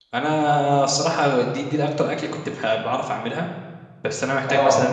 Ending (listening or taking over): listening